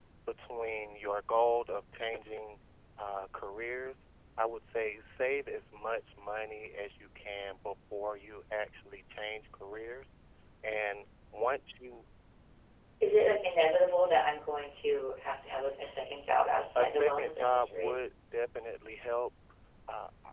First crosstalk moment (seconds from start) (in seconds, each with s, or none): 16.8 s